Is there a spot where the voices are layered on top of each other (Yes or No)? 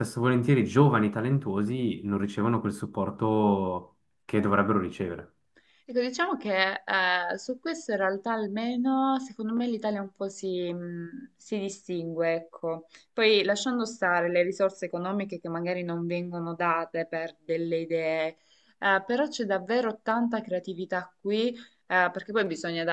No